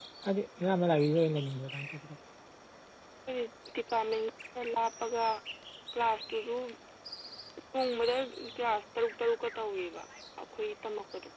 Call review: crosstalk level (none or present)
none